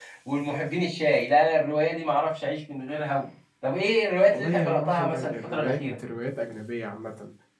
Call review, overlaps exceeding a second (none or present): present